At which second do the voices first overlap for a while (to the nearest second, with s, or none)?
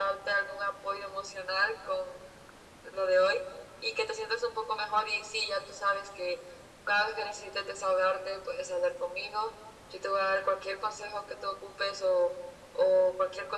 none